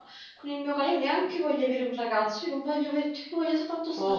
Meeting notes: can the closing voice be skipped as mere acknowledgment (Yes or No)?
No